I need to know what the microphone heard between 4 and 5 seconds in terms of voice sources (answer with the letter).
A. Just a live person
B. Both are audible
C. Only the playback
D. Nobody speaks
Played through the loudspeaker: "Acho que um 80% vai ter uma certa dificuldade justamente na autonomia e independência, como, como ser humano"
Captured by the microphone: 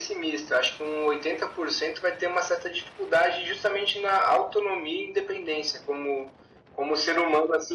C